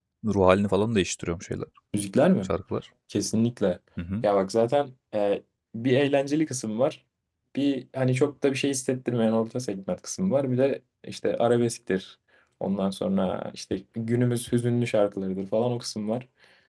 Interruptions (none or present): none